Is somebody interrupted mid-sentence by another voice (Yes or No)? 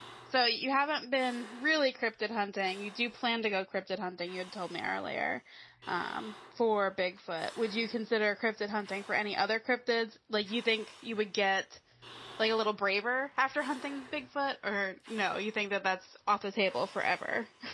No